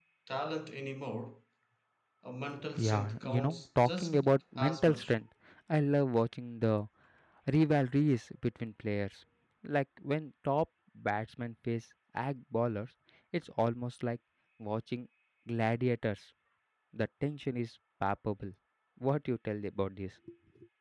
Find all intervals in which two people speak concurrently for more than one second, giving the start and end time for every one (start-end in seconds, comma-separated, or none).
2.8-5.1